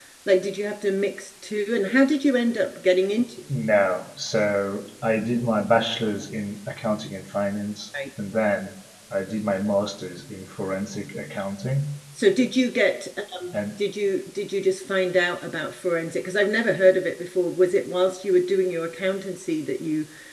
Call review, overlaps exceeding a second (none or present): none